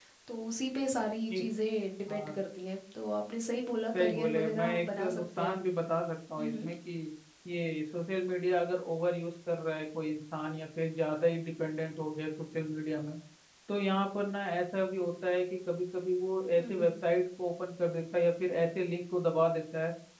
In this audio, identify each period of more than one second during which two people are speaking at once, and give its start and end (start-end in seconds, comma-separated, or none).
4.0-5.5